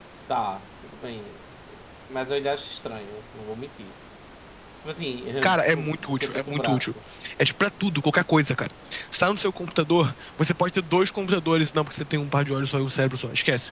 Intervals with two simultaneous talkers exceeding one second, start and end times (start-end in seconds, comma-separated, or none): 5.4-6.8